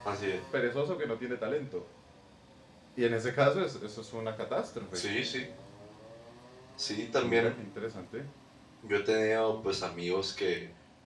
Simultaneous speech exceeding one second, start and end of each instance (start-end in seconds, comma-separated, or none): none